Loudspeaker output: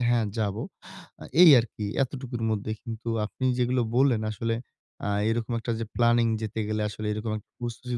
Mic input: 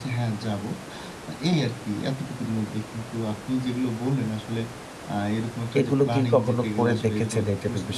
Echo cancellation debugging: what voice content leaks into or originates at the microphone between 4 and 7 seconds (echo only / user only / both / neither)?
both